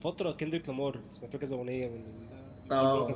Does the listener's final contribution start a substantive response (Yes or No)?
Yes